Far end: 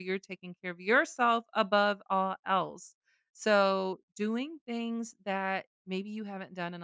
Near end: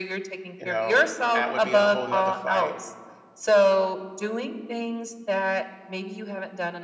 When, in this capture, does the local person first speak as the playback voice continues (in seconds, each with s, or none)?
0.6 s